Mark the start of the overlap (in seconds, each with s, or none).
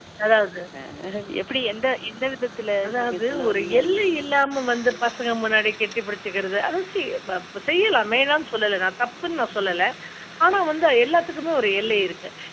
2.9 s